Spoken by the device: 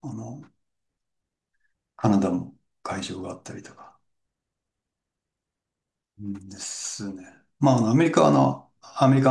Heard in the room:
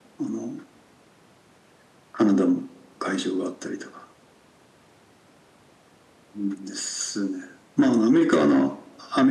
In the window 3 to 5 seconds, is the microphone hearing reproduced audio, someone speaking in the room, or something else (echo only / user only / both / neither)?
echo only